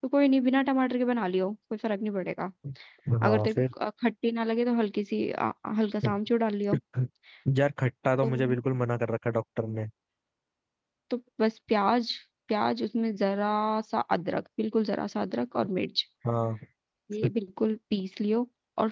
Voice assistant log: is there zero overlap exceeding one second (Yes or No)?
Yes